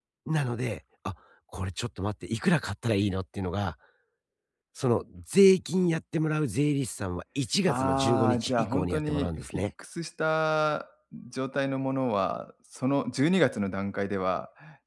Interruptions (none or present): present